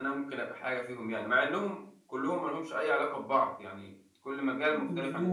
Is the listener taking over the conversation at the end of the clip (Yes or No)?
Yes